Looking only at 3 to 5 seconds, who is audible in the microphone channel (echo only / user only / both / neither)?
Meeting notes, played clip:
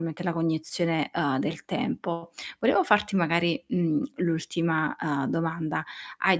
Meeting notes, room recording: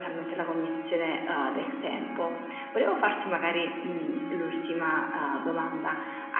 echo only